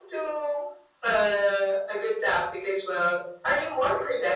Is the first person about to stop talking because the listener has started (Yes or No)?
No